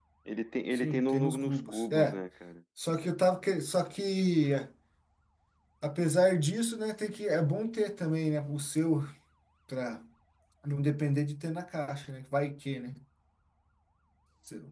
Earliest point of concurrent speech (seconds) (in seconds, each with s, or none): 0.7 s